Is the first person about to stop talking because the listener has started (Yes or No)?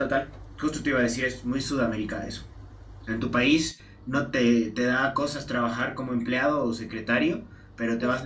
No